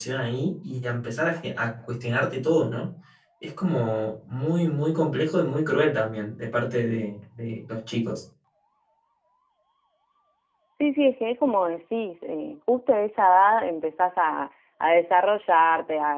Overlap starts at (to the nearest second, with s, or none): none